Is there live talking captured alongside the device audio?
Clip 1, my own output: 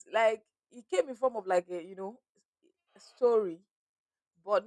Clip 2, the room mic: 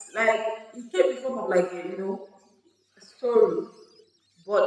No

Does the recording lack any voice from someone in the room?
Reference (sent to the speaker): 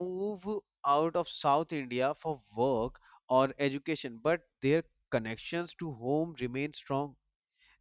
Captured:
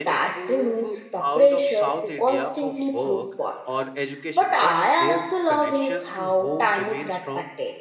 No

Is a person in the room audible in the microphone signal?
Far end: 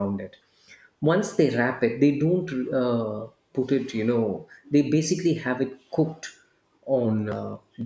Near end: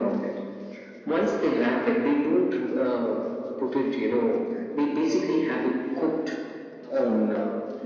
Yes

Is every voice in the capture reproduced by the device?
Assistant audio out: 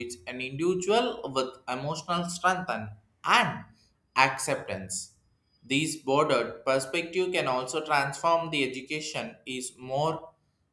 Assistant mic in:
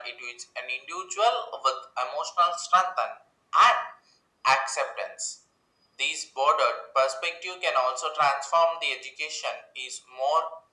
Yes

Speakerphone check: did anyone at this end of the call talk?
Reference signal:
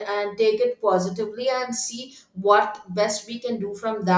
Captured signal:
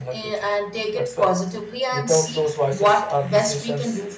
Yes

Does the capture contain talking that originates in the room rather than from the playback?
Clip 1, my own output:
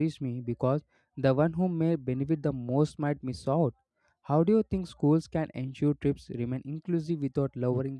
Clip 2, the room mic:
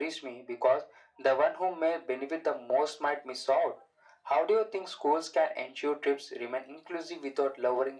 No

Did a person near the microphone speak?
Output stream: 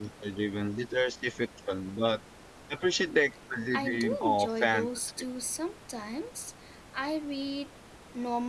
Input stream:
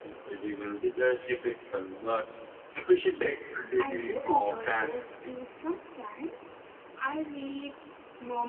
No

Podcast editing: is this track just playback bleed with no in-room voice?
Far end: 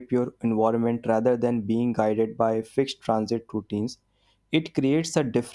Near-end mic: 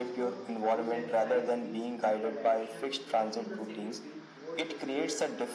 No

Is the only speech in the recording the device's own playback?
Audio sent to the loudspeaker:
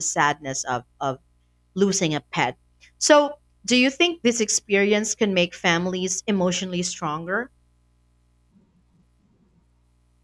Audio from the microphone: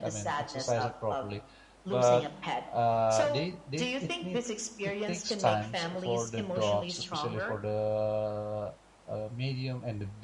No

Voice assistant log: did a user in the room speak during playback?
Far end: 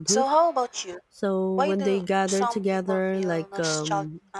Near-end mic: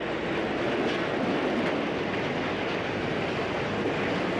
No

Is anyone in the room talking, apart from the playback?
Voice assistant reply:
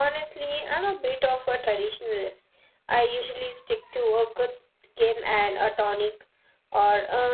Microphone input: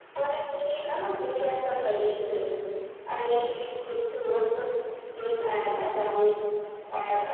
No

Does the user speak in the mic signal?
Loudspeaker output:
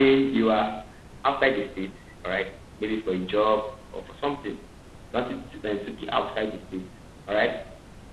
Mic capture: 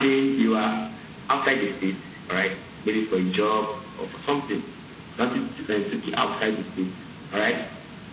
No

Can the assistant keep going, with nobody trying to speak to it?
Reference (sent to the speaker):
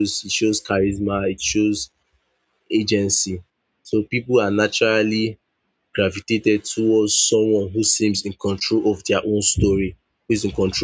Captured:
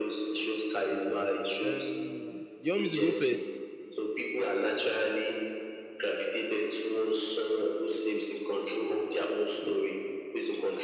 No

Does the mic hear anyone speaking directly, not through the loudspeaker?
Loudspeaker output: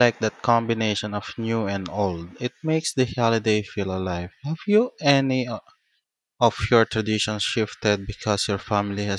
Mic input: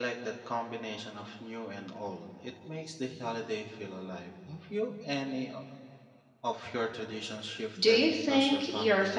Yes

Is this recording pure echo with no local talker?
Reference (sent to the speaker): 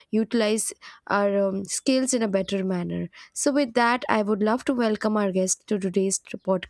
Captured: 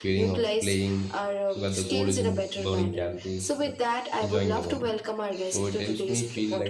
No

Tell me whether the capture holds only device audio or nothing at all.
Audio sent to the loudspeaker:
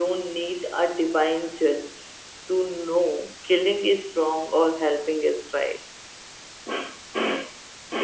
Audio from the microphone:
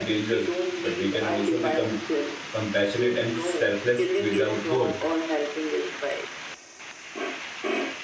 No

